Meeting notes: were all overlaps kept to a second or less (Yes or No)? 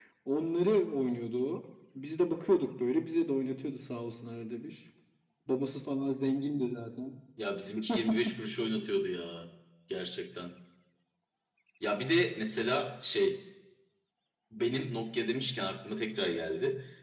Yes